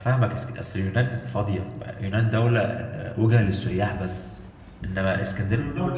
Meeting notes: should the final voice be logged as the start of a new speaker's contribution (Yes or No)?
Yes